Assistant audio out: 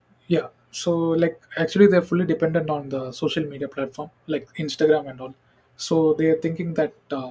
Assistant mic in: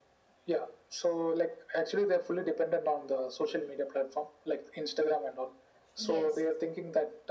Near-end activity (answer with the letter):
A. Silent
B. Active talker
B